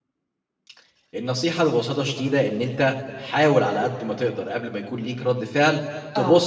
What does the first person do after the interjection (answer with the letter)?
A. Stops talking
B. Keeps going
B